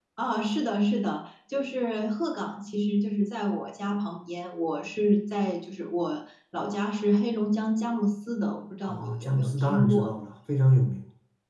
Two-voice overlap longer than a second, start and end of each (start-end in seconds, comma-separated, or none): 8.8-10.1